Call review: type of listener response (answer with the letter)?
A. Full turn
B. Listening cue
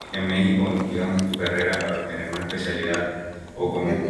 A